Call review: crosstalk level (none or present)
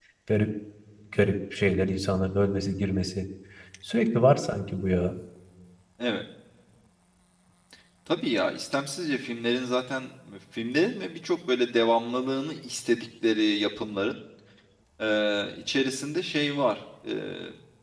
none